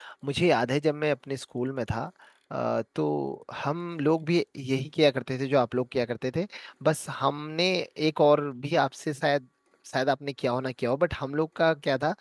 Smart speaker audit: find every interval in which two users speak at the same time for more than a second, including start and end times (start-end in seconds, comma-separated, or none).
none